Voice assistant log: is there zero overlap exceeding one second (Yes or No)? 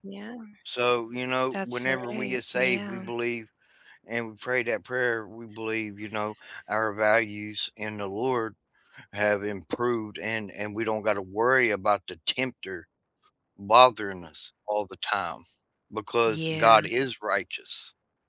No